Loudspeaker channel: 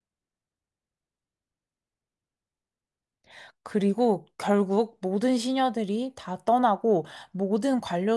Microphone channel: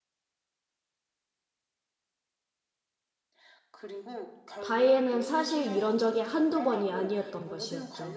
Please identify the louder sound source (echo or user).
user